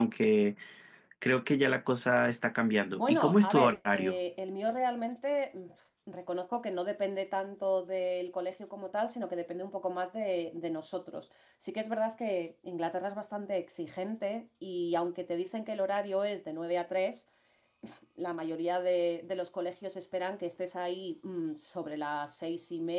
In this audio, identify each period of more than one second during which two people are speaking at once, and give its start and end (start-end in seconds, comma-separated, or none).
2.9-4.1